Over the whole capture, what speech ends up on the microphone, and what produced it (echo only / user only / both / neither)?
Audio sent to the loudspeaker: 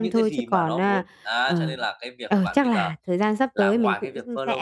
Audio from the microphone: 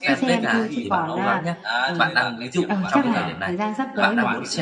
both